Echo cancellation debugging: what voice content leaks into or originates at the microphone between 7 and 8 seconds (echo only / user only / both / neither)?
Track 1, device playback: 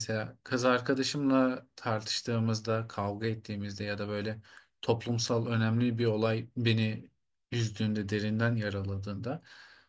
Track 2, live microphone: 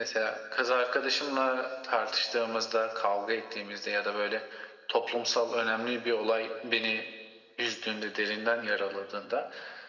echo only